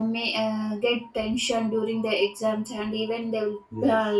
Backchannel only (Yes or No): Yes